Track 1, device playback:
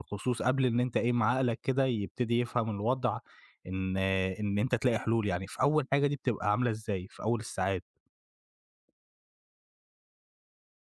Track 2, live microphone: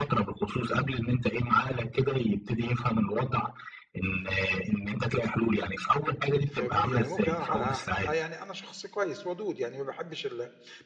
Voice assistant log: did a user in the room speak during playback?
Yes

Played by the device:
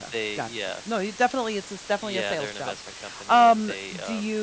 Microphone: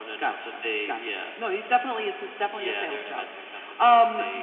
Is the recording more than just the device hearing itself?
No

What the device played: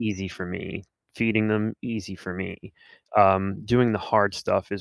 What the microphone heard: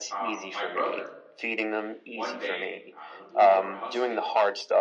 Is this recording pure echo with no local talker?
No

